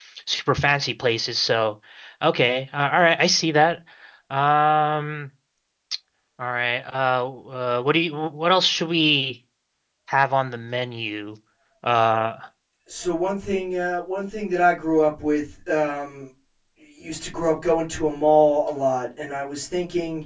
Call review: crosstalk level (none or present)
none